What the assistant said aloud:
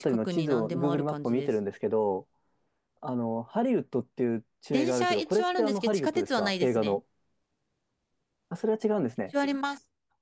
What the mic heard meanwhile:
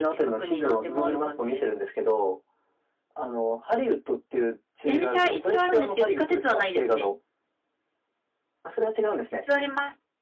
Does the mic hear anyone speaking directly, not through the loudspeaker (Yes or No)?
No